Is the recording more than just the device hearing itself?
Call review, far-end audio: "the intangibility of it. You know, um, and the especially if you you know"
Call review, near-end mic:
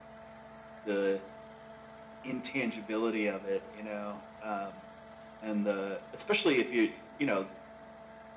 No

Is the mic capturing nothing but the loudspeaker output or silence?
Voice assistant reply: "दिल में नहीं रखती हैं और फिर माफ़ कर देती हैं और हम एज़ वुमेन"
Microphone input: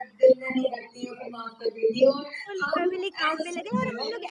No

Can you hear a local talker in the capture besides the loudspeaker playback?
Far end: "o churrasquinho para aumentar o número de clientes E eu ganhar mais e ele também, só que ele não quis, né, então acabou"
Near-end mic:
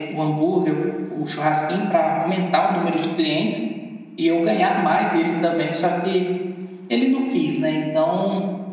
No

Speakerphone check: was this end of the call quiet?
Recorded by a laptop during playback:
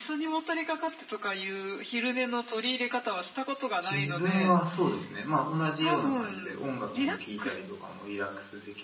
No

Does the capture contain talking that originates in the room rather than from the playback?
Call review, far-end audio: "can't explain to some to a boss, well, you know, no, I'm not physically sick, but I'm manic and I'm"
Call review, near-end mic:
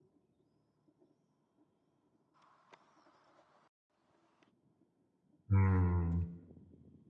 Yes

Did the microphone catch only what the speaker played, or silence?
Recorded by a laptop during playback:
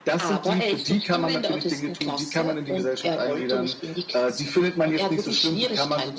Yes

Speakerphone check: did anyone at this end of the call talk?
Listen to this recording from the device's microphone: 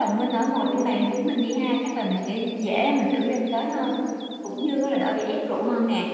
No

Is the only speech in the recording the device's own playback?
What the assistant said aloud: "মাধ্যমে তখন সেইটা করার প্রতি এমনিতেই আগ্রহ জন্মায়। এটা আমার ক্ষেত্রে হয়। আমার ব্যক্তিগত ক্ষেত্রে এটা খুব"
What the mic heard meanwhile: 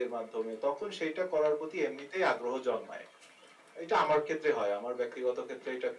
Yes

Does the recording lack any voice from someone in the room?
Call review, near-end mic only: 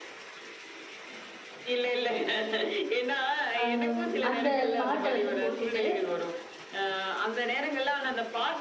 No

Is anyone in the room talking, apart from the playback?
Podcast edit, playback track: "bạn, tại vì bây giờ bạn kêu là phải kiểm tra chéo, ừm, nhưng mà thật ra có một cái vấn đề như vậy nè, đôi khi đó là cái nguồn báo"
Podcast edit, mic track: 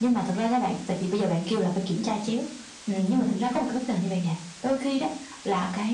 No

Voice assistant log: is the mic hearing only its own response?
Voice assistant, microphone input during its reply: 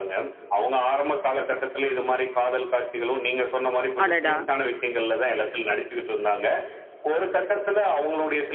No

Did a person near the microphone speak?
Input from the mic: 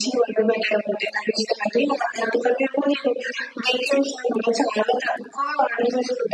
No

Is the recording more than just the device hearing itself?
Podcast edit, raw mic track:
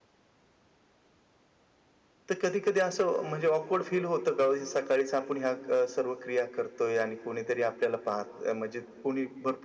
Yes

